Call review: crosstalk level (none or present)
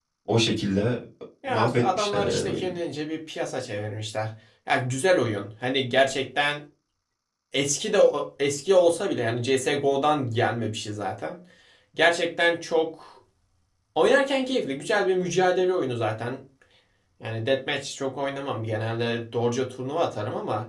present